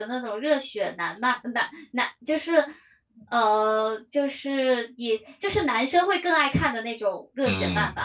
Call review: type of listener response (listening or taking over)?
taking over